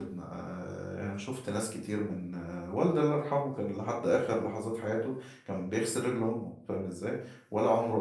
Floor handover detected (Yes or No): No